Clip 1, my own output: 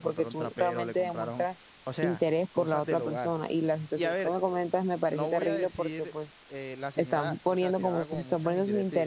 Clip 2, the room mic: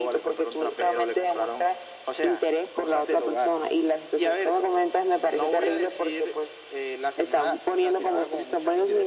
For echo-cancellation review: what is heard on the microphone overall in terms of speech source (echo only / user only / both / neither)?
echo only